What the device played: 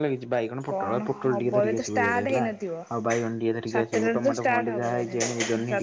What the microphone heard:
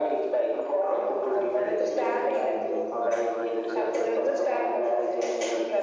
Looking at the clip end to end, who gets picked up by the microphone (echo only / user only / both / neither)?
both